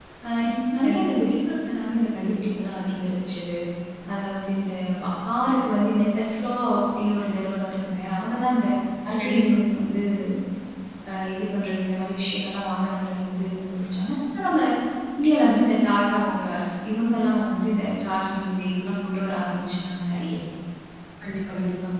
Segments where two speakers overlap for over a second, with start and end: none

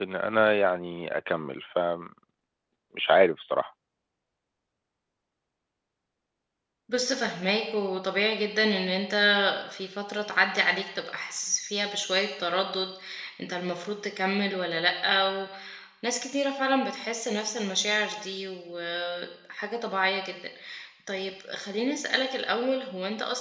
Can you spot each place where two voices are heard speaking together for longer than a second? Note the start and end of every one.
none

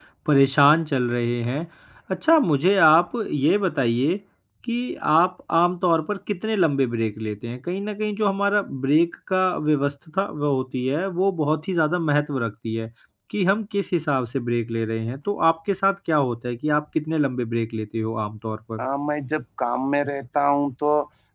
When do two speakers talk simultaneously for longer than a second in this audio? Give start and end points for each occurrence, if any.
none

